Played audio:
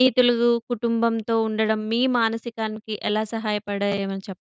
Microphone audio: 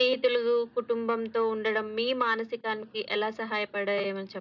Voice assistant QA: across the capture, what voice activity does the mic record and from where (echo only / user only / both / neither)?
echo only